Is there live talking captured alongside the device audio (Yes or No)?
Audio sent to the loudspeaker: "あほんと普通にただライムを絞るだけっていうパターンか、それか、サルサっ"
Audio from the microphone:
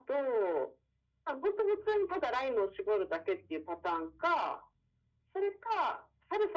No